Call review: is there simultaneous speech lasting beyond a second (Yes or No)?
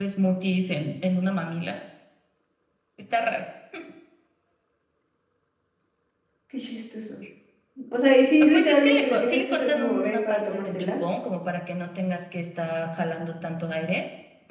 Yes